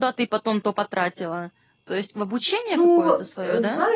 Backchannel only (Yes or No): No